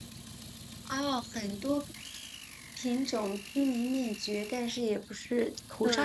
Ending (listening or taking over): taking over